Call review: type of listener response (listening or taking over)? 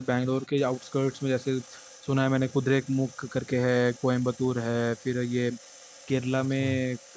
listening